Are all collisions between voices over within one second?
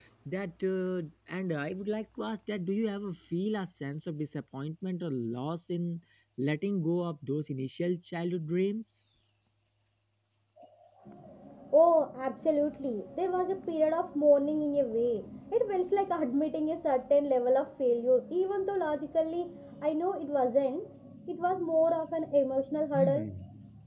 Yes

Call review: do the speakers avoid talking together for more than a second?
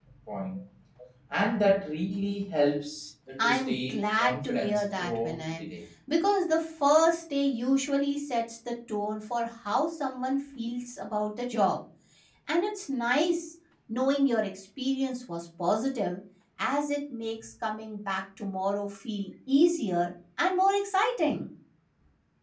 No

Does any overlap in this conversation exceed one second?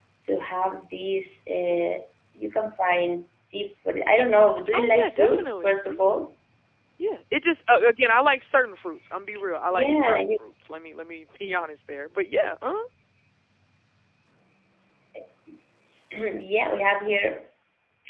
Yes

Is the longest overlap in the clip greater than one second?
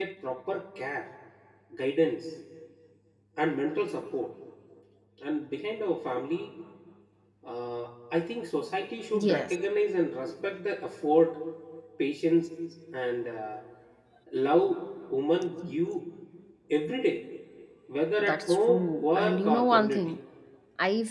Yes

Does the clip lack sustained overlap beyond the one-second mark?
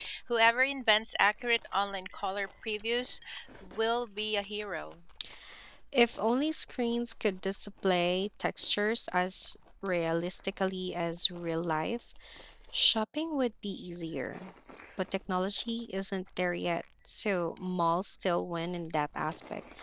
Yes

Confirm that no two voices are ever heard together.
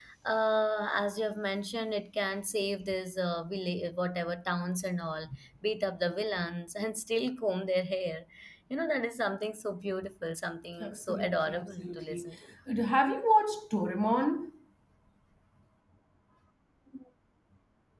No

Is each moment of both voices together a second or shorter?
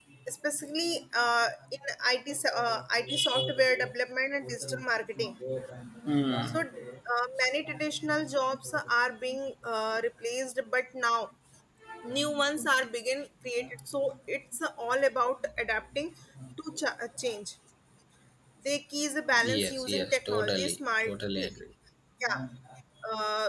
No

